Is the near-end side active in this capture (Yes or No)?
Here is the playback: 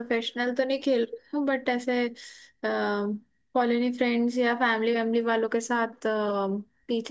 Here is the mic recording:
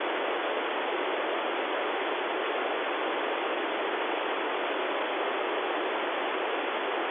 No